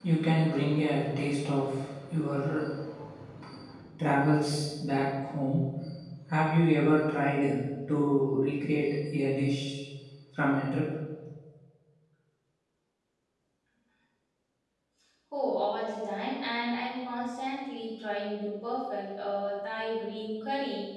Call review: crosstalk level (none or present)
none